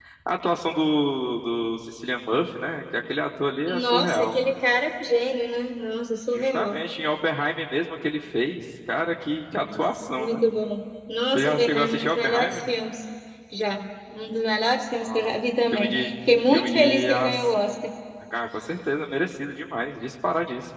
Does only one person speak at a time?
No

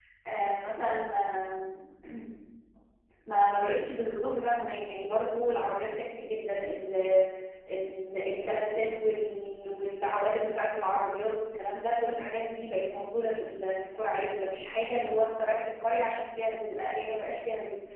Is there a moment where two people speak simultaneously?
No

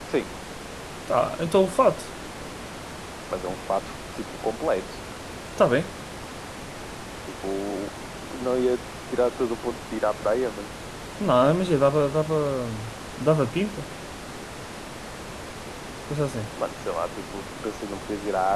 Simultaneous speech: No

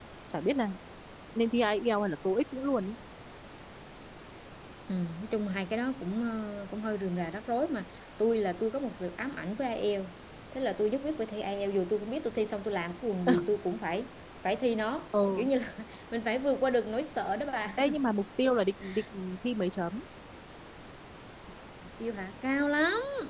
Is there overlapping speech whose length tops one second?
No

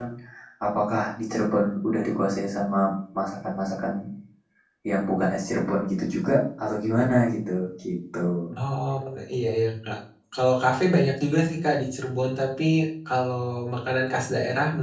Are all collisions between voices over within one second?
Yes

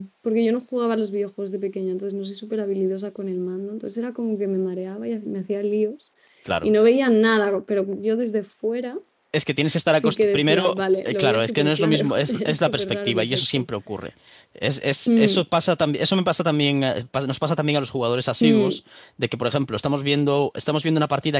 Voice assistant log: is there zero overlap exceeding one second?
No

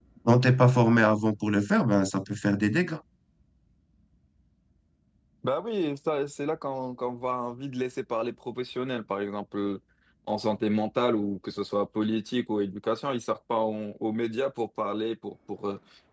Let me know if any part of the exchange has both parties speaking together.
No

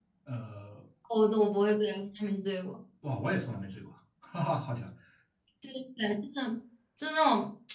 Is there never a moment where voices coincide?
Yes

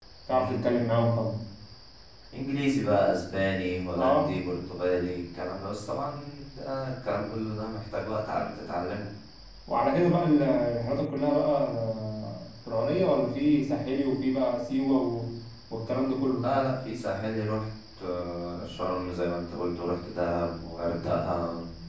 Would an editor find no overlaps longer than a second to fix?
Yes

